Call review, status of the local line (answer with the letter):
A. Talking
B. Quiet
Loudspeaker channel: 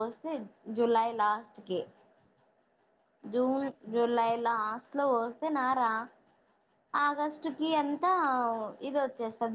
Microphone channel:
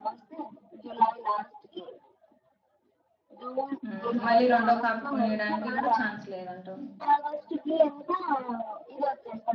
A